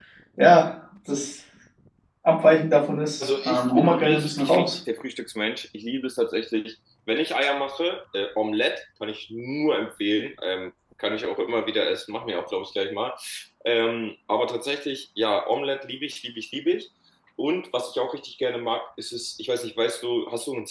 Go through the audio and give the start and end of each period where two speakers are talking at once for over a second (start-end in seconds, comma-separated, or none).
3.2-4.7